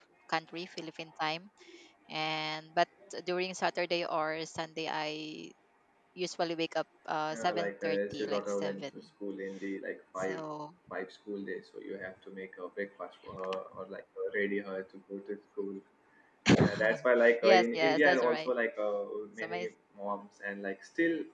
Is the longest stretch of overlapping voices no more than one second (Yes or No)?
No